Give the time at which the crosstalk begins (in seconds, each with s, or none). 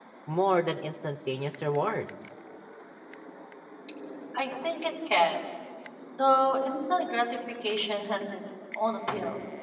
none